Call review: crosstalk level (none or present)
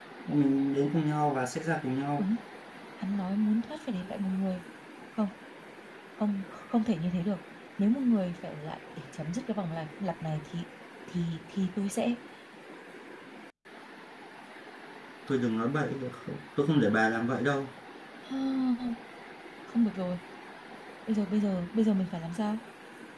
none